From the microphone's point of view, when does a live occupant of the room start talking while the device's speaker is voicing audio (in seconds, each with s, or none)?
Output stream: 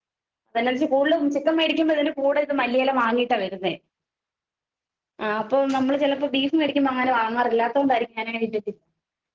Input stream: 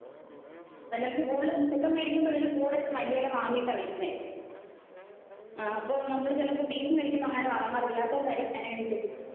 none